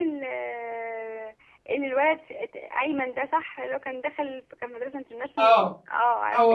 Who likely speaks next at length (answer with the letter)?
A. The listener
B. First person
A